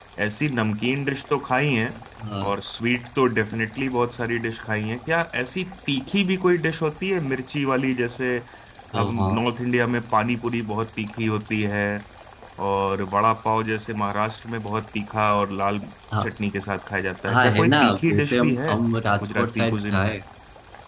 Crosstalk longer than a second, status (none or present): present